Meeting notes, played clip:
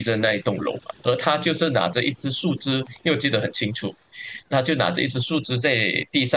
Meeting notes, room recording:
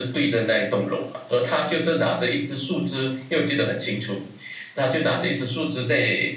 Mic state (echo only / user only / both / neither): echo only